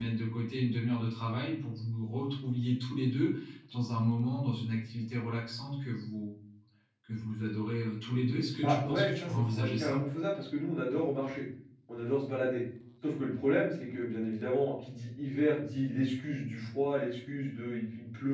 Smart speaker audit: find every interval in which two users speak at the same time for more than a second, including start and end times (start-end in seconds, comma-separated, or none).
8.6-10.0